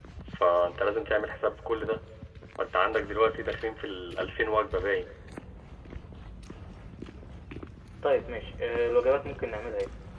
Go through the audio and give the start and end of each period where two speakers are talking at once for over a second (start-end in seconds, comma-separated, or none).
none